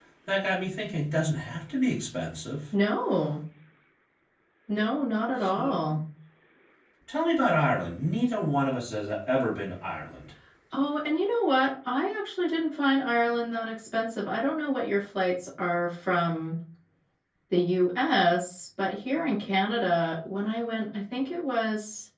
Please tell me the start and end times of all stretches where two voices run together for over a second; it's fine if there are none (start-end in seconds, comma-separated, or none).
none